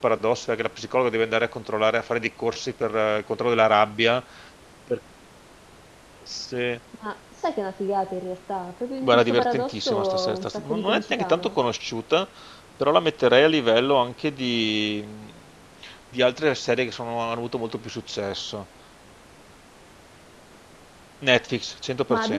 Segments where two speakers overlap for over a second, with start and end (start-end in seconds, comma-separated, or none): 9.0-11.6